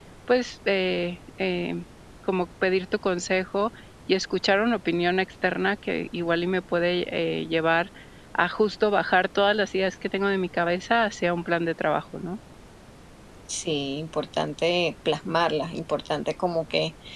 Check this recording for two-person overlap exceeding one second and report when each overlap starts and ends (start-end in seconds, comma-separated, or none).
none